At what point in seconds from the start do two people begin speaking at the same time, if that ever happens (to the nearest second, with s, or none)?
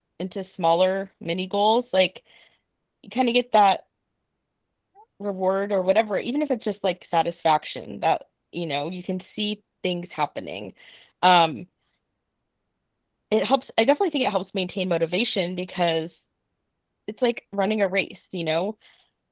none